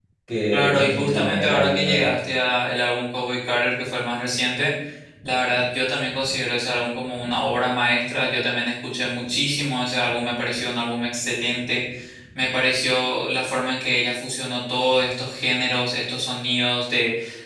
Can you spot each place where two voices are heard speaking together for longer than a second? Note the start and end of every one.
0.5-2.1

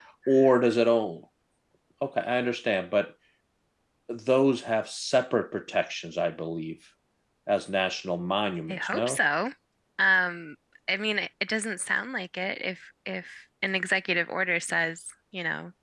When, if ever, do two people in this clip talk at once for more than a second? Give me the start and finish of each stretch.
none

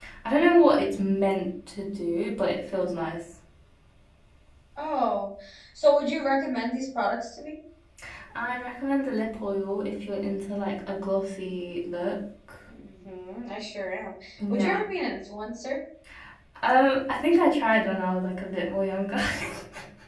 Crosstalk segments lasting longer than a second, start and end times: none

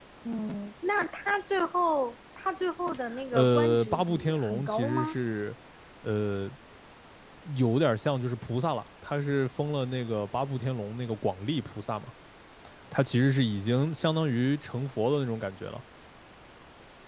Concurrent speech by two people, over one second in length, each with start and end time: 3.3-5.2

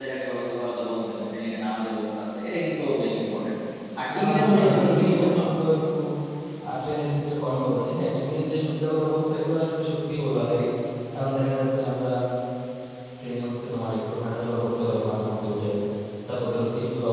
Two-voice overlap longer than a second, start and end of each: 4.1-5.4

